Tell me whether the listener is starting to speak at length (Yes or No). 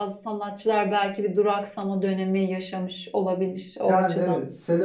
Yes